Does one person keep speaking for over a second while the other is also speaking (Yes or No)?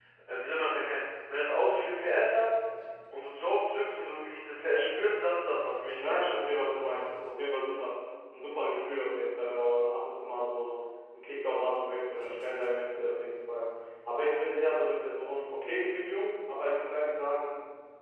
No